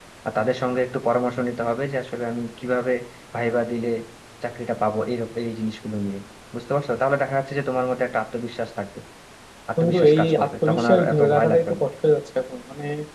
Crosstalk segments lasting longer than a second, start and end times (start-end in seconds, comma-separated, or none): 9.8-11.8